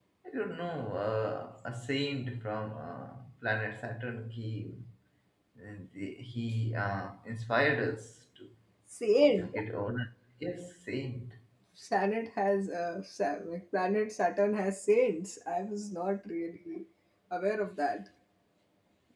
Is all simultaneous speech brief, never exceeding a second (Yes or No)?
Yes